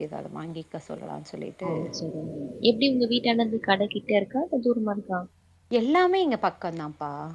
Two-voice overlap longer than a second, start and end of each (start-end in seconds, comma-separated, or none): none